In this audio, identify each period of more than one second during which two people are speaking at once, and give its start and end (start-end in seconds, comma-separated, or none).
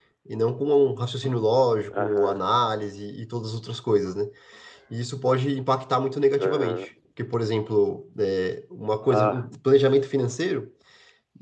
none